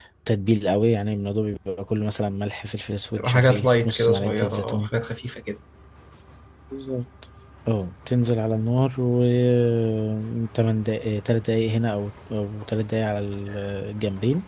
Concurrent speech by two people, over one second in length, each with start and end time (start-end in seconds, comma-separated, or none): 3.2-4.9